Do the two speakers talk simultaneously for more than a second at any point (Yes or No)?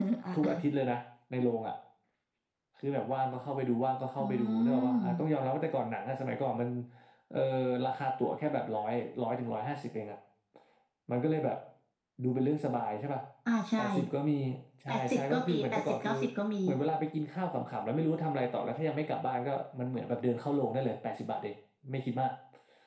Yes